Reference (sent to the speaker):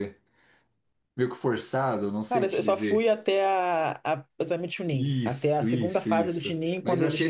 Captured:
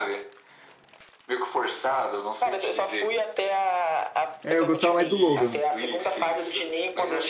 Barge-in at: 4.4 s

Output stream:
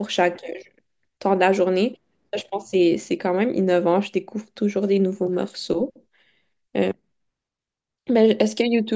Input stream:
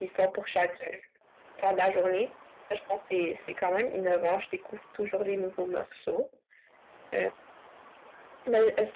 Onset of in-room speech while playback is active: none

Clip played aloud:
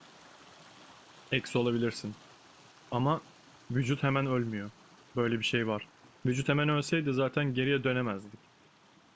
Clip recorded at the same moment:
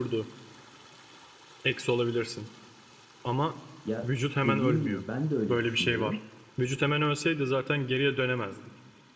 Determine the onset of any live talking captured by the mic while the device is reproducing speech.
3.8 s

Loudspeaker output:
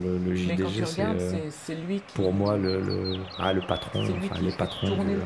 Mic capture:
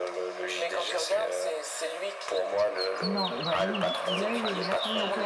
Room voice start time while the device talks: 3.0 s

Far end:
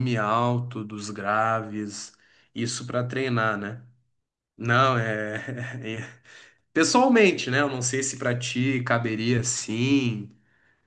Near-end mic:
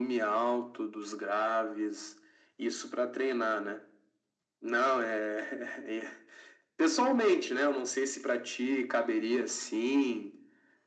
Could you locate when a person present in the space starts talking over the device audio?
none

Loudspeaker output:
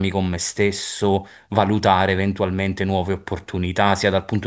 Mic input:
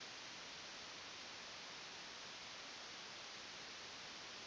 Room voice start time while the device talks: none

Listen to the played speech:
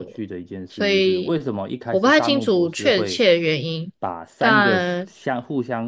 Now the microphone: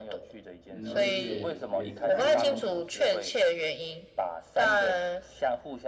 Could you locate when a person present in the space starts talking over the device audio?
0.7 s

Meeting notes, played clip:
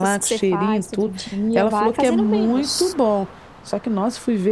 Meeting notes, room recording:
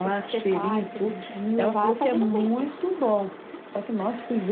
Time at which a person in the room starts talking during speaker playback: none

